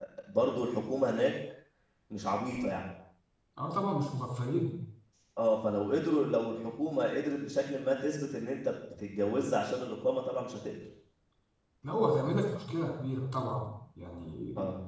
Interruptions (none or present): none